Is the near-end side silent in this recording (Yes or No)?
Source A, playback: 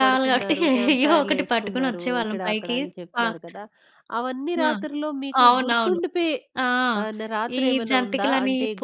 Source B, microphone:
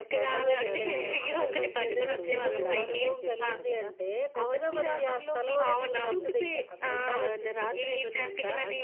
No